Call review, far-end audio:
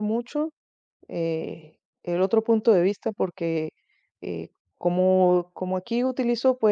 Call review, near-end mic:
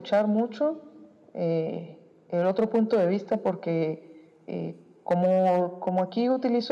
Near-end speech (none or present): none